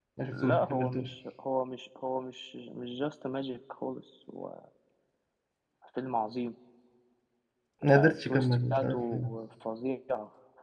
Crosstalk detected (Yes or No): Yes